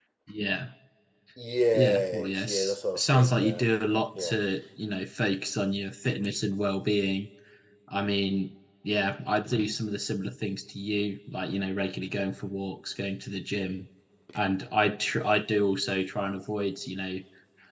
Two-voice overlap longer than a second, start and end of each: 1.7-3.7

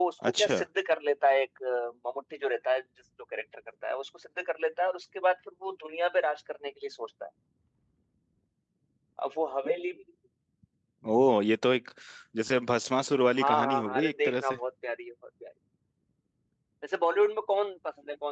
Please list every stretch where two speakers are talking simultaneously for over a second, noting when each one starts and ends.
13.4-14.6

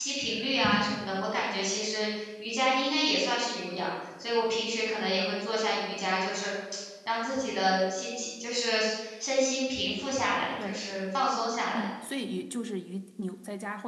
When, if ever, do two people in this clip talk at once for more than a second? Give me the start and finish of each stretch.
none

